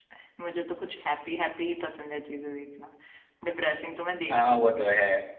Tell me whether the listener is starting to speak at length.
Yes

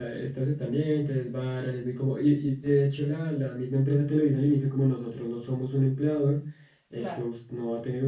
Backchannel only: Yes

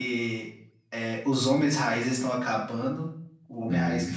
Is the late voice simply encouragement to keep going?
Yes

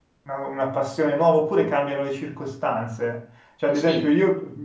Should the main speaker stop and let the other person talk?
No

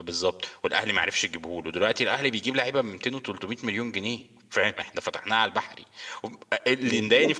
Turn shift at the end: Yes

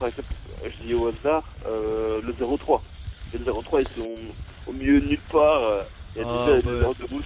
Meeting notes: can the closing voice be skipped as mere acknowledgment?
Yes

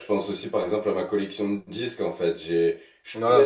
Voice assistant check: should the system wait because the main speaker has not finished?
Yes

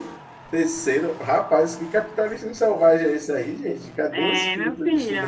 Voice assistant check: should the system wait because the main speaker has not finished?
No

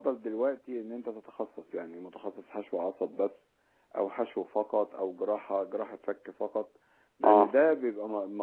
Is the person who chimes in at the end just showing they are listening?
Yes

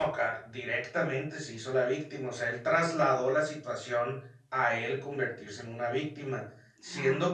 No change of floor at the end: Yes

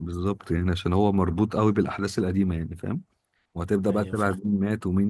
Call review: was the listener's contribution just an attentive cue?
Yes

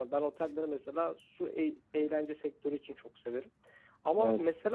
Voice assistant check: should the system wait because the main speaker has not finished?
Yes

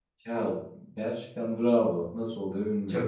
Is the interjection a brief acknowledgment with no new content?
No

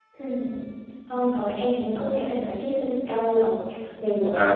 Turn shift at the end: Yes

